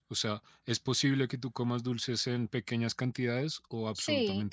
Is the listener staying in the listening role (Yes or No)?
No